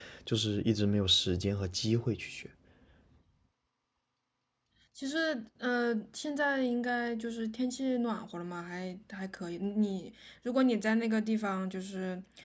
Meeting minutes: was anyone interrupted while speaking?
No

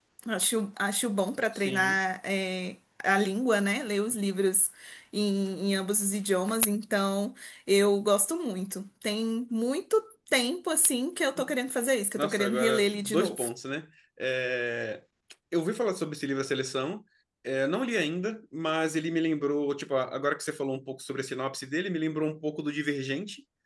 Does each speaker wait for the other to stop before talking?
No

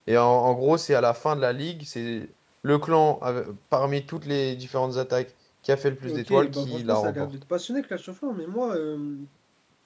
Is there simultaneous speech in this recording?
Yes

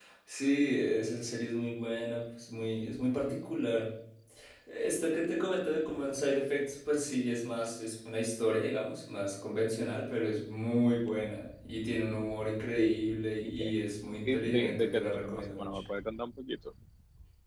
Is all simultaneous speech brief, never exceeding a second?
No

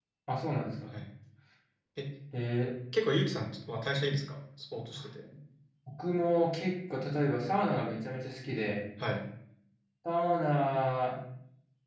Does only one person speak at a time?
Yes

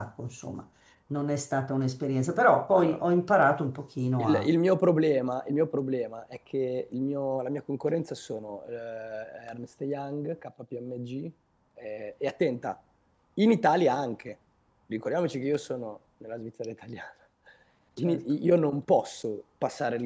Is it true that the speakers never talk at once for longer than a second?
Yes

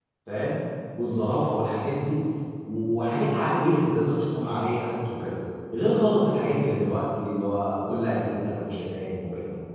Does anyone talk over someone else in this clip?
No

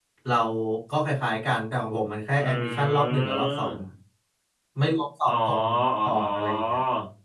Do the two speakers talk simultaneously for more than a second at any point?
Yes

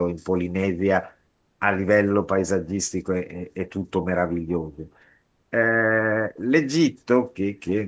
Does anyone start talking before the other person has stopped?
No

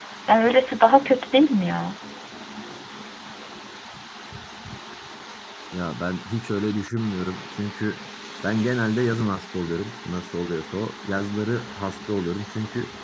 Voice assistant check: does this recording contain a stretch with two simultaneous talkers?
No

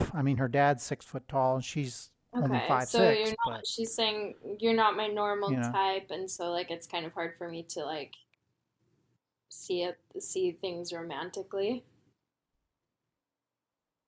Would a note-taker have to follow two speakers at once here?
Yes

